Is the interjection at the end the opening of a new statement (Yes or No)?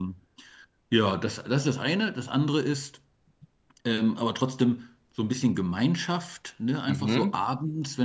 No